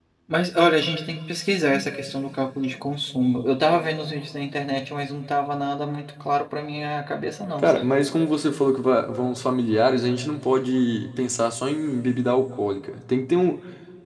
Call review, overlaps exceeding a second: none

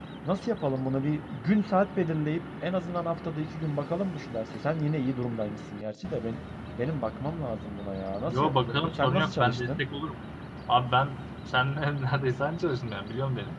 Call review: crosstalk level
present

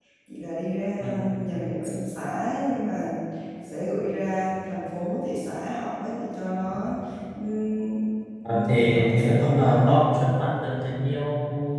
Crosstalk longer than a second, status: present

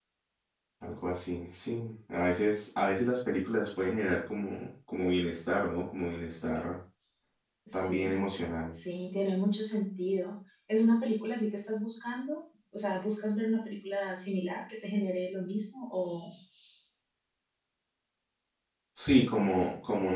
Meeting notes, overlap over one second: none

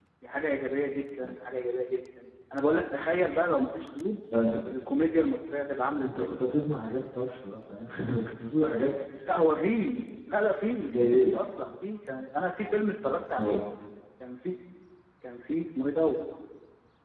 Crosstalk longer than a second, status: none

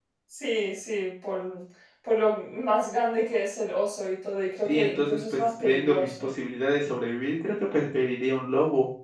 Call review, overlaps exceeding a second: present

